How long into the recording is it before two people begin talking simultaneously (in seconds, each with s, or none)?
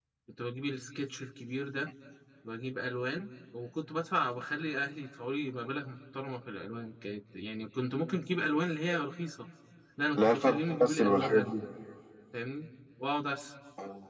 10.2 s